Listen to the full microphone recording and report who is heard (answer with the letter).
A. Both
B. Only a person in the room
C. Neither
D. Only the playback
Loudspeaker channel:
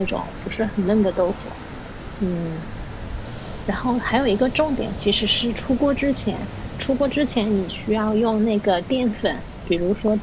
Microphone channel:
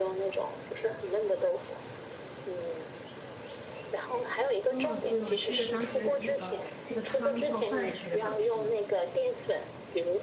A